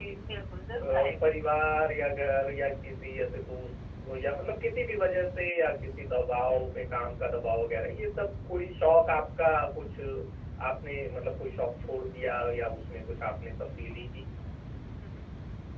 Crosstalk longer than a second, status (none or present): none